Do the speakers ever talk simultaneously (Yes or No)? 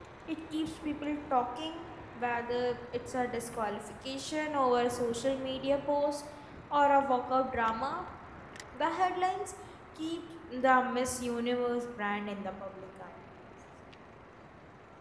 No